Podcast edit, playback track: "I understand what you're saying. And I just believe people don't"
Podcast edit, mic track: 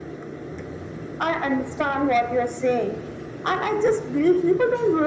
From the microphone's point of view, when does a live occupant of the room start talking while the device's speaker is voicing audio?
none

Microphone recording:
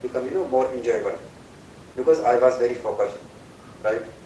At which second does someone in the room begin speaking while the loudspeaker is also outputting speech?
none

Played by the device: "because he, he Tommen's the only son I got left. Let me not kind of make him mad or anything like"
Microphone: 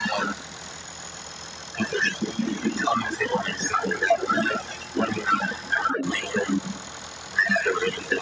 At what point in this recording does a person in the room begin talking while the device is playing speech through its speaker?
none

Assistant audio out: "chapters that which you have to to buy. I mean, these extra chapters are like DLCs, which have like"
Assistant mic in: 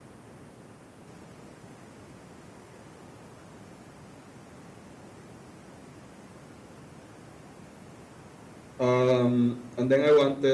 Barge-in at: 9 s

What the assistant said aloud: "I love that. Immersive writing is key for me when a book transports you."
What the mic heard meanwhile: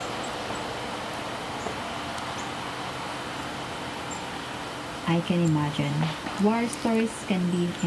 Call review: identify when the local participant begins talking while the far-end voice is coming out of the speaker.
5 s

